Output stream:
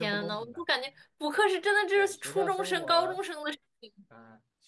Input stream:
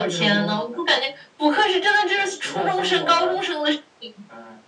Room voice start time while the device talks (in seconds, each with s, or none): none